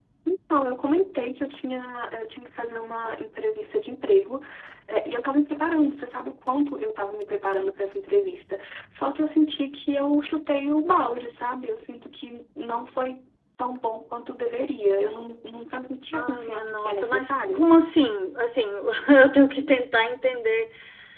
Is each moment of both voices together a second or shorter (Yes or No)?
No